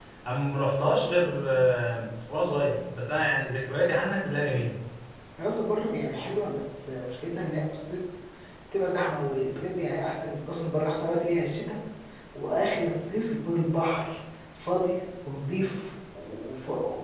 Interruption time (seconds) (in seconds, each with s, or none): none